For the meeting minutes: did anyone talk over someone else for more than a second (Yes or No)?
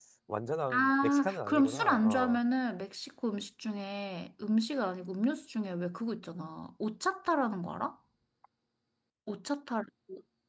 Yes